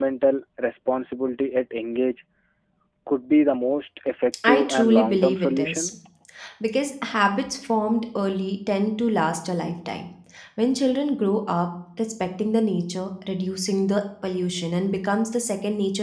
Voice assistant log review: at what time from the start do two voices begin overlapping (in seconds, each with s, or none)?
4.4 s